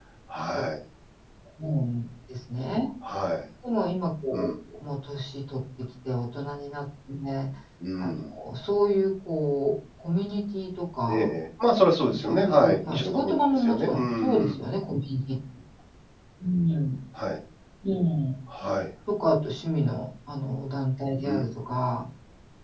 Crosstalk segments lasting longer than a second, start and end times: 12.1-14.6

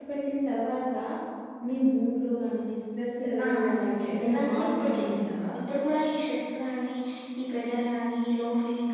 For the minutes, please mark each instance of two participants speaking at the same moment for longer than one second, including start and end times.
3.4-5.0

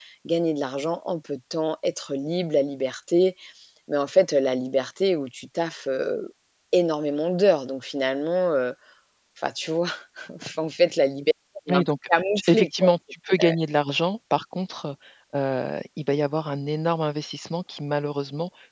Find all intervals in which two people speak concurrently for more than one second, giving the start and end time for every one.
11.7-12.9

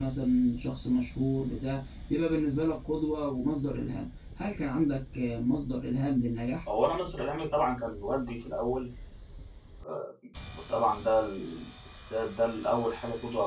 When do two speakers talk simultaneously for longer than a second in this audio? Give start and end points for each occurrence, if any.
none

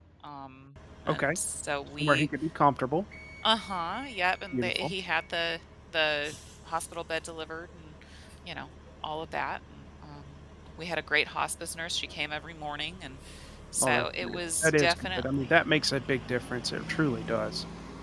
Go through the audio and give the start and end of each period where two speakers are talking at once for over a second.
13.8-15.6

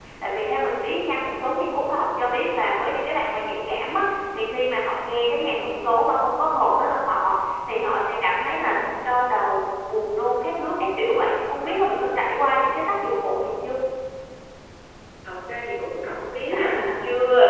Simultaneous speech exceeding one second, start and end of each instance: none

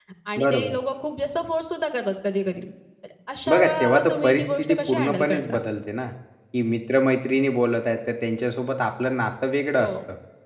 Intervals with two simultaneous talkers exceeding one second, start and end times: 3.5-5.6

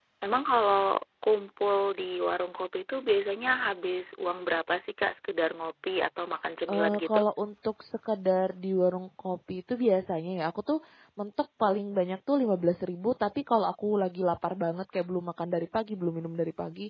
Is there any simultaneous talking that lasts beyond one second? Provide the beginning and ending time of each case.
none

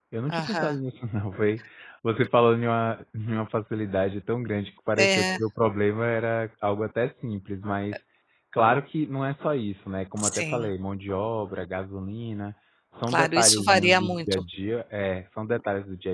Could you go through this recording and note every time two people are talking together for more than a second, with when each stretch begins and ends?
13.1-14.4

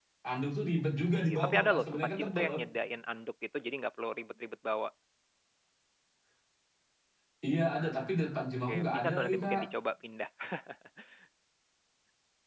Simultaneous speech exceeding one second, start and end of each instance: 1.1-2.6, 7.8-9.6

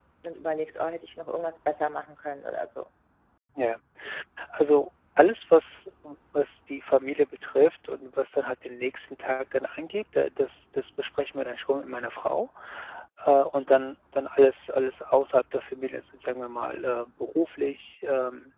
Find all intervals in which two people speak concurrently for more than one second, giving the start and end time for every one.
none

